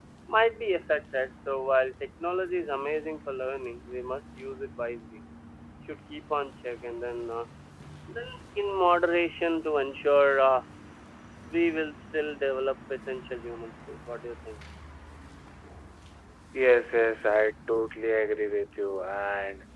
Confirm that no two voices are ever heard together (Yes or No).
Yes